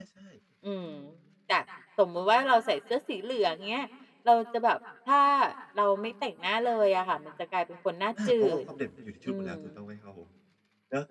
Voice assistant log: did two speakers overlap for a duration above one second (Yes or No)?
No